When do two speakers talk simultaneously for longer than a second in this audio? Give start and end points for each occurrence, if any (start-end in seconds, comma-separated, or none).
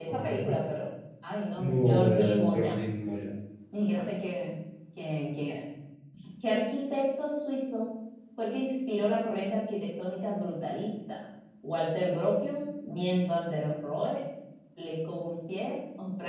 1.6-2.8